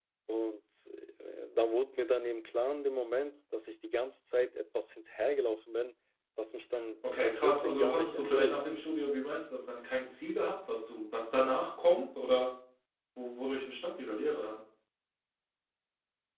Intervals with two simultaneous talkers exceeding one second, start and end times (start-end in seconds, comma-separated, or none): 7.0-8.6